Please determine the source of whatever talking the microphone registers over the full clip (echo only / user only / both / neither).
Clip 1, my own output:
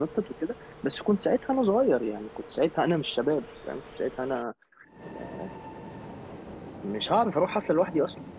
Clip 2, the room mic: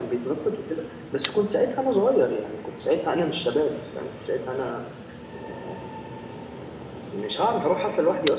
echo only